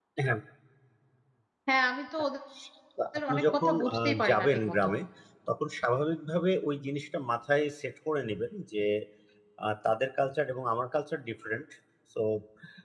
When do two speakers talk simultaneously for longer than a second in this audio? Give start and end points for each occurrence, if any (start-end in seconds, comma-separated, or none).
3.3-4.9